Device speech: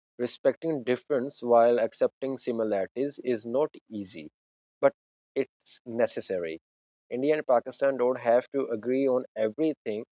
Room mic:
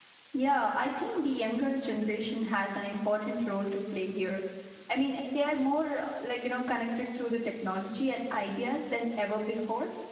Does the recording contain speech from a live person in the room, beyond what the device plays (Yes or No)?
Yes